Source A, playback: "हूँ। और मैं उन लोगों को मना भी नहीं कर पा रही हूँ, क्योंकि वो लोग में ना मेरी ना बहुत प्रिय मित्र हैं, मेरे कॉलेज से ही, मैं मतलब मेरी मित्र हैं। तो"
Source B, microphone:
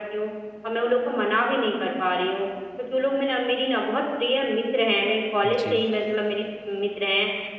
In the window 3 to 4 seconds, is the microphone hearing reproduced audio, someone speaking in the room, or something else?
echo only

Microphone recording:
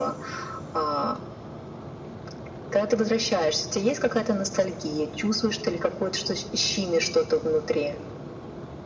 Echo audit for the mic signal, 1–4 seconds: echo only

